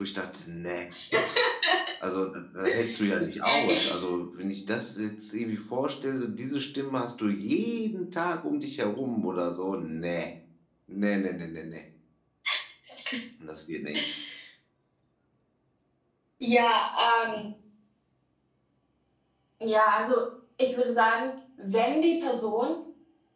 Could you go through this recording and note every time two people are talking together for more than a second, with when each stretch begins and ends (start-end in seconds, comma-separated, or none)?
none